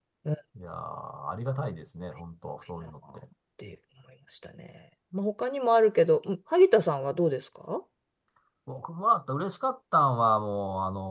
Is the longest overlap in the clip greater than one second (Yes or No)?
No